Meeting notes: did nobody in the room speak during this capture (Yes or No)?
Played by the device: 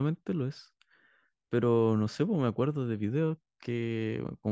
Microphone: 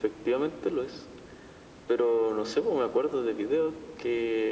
Yes